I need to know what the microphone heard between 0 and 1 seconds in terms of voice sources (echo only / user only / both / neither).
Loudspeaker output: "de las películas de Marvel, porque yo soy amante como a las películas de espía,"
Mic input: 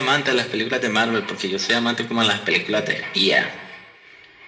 echo only